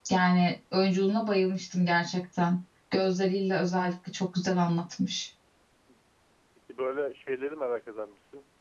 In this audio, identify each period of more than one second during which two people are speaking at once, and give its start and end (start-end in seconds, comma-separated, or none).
none